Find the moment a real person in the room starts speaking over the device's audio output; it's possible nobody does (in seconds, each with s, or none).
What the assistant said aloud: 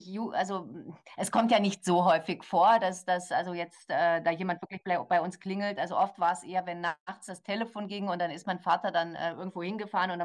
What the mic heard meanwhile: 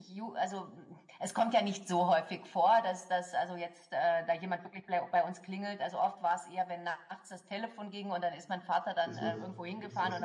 9.0 s